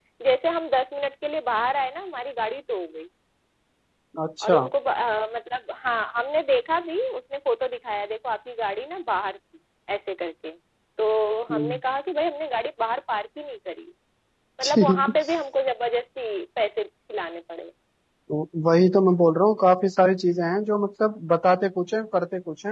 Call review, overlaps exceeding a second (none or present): none